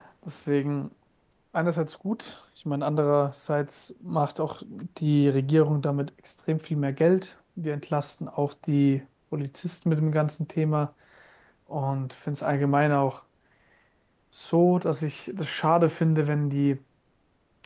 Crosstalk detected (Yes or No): No